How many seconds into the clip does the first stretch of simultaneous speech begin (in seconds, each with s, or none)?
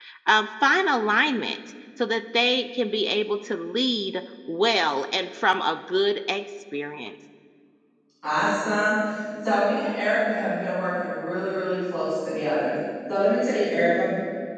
none